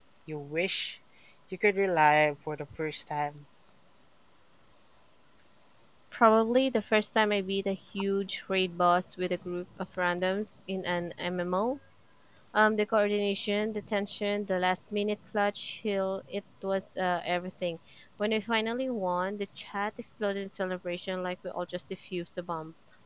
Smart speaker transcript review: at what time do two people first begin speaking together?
none

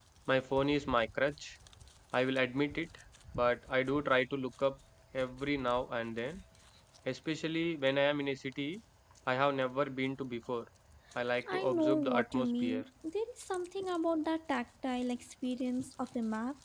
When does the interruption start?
11 s

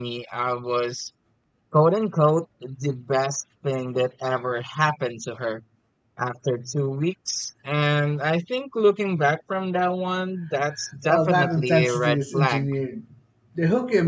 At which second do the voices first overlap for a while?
11 s

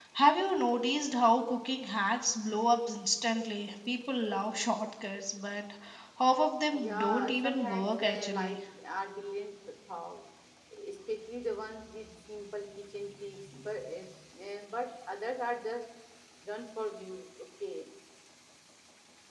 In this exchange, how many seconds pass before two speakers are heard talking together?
7 s

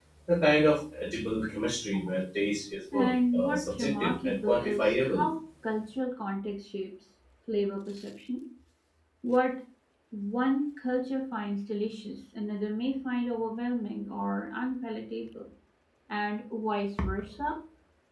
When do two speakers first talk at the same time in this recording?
3 s

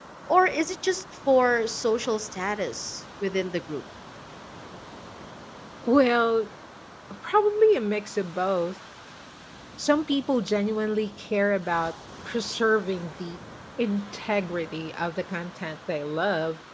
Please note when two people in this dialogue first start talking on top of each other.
none

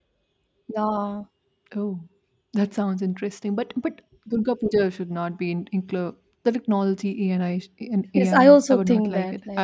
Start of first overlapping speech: 8 s

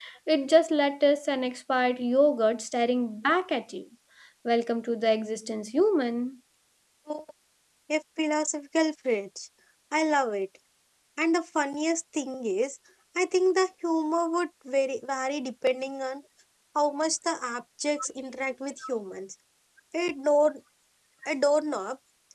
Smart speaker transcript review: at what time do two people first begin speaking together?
none

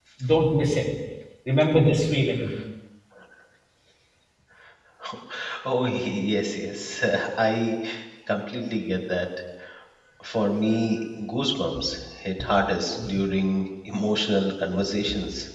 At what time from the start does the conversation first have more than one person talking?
none

